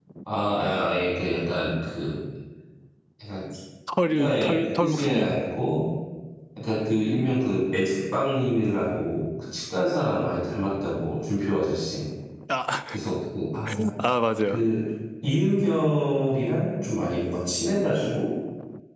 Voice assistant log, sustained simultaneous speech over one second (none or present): present